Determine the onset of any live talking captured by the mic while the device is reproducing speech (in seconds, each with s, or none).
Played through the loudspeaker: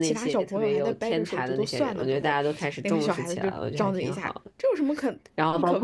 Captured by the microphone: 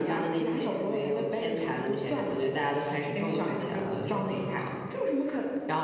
none